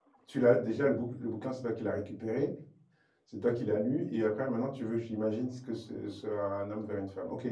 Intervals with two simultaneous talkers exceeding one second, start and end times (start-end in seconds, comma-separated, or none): none